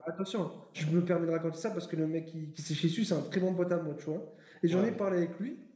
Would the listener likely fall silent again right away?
Yes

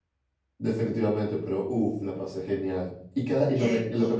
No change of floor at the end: Yes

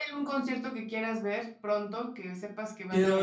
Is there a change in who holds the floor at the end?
Yes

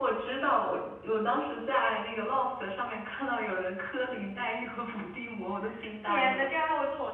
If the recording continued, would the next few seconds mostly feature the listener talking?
Yes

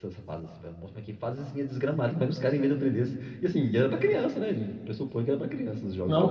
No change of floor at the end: No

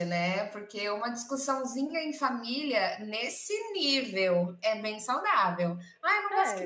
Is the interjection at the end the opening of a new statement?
No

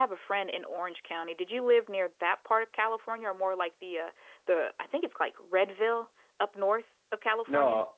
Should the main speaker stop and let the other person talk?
Yes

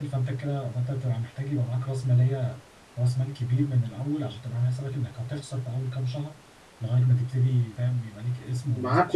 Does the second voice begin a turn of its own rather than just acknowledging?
Yes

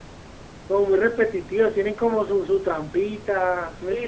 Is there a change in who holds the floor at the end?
Yes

